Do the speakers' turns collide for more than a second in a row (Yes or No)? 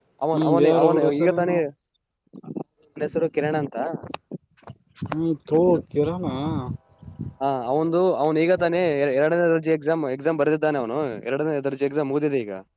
Yes